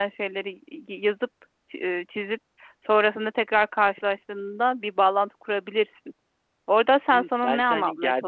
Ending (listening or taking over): taking over